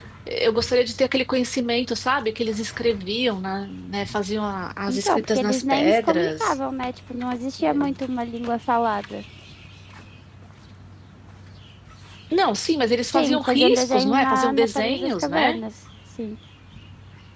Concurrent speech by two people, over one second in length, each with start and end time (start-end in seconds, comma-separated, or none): 4.9-6.5, 13.1-15.6